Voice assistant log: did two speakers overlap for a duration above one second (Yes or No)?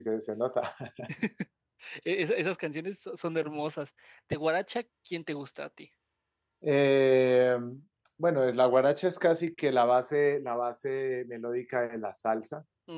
No